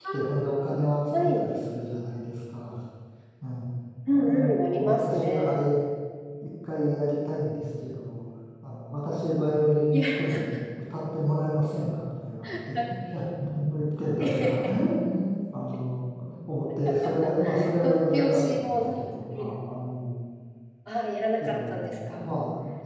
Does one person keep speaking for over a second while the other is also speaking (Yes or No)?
Yes